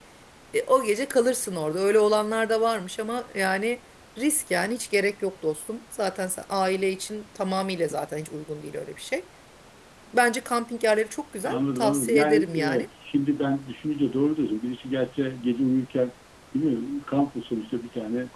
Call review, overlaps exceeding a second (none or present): present